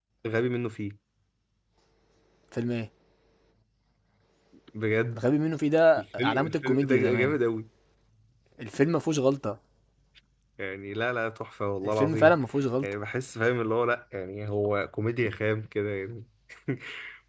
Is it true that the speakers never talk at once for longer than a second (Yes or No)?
No